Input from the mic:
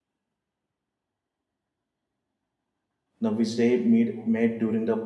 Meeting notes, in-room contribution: present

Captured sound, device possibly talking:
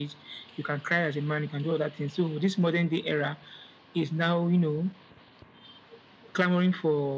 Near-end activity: none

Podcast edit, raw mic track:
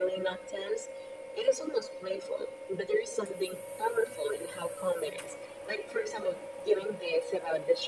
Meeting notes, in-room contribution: none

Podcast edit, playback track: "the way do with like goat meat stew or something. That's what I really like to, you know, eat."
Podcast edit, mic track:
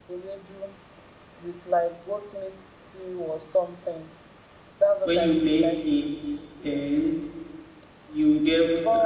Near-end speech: present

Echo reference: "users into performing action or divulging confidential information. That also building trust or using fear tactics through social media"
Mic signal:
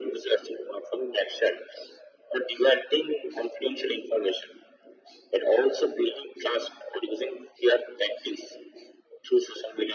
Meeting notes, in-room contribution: none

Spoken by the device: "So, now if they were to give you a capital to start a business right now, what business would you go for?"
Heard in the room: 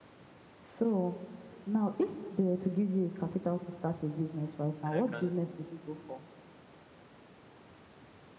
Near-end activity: present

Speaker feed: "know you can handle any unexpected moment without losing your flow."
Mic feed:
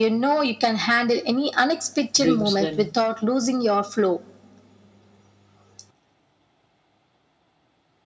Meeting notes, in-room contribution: present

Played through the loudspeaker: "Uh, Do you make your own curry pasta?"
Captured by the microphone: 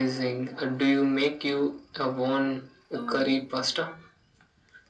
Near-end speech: present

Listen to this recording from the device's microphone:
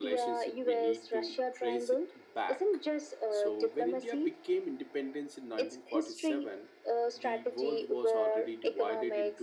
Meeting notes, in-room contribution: present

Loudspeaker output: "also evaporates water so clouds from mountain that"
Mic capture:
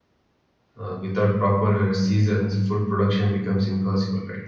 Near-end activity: present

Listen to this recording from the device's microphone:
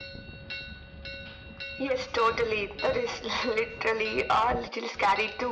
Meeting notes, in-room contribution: none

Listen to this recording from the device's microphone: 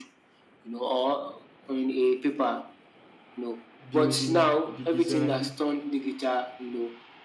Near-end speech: present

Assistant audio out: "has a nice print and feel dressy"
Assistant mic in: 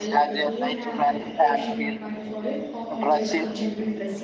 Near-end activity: present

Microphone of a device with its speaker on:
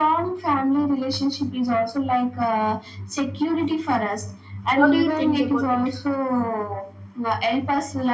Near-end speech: present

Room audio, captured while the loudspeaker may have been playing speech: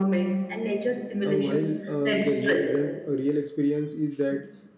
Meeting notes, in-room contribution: present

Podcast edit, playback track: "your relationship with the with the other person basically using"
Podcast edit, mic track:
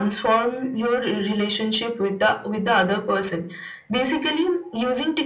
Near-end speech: none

